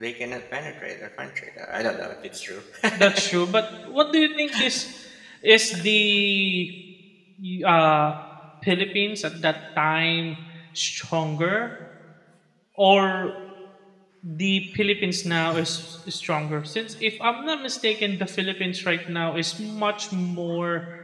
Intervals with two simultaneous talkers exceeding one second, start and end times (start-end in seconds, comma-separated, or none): none